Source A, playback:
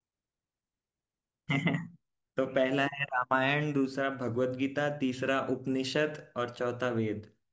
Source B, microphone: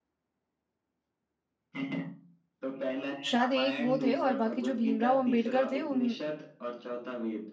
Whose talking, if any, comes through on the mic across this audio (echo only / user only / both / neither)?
both